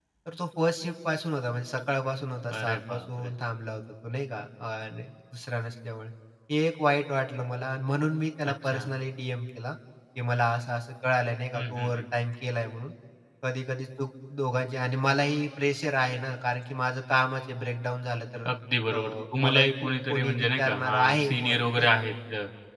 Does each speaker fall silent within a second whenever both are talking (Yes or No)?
No